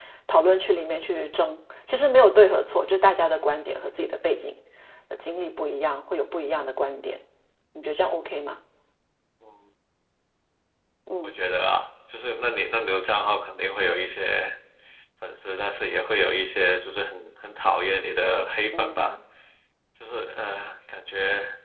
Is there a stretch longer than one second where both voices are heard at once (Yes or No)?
No